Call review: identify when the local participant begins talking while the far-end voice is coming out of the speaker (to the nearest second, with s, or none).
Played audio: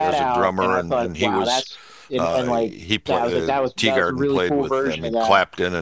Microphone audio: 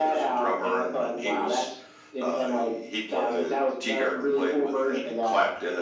none